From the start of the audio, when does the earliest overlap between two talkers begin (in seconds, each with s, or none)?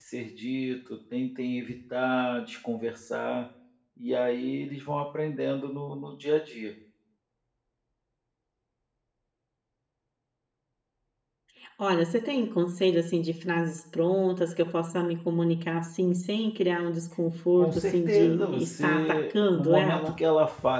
17.6 s